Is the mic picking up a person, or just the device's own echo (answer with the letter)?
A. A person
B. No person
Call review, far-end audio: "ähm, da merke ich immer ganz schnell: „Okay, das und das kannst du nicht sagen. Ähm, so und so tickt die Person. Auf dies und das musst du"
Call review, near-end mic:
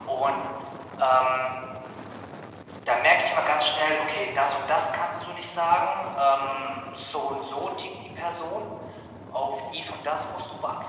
B